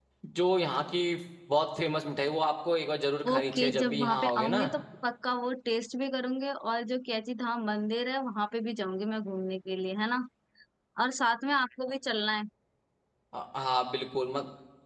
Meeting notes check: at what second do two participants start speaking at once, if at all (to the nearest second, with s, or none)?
3 s